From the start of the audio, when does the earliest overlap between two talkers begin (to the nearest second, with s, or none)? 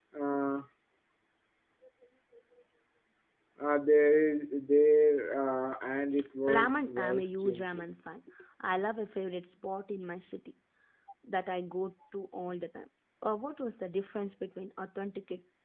6 s